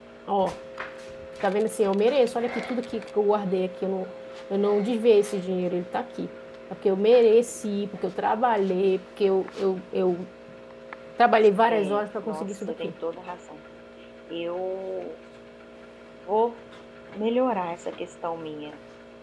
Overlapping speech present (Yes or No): Yes